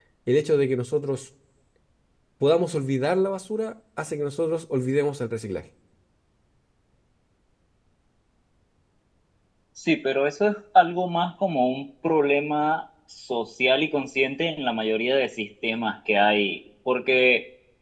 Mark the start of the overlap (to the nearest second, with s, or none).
none